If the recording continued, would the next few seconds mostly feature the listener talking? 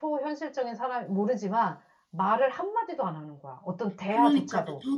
Yes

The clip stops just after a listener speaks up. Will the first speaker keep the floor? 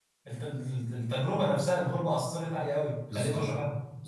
No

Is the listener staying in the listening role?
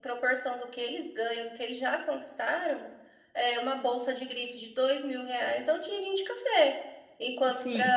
Yes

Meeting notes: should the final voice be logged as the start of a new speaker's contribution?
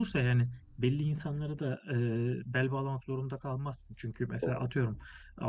No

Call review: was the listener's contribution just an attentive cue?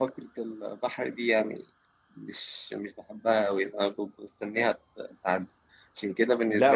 No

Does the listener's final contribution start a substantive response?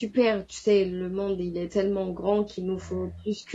No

